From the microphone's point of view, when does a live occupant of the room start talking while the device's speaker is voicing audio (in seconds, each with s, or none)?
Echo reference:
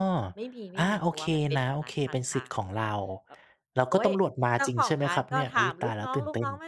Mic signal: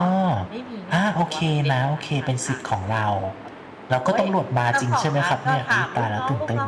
none